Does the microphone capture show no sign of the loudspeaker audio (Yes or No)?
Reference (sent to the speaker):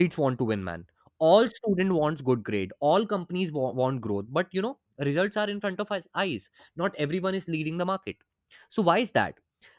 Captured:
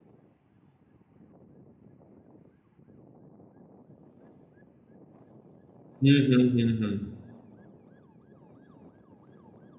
Yes